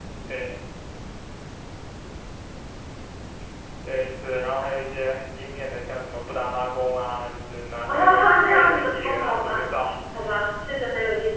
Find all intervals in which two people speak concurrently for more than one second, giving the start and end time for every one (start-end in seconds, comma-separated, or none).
7.9-9.7